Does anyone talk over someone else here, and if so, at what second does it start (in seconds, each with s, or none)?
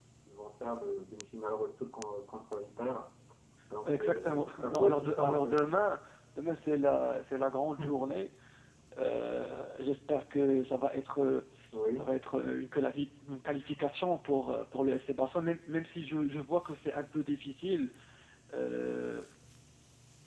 3.8 s